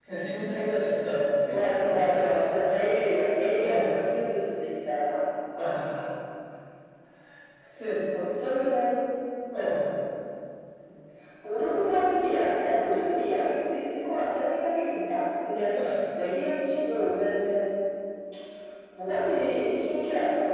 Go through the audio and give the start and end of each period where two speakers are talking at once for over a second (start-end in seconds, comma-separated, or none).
1.5-2.8